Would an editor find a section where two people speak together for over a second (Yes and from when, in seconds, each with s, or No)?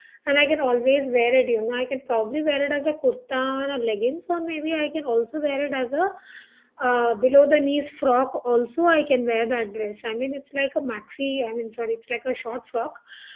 No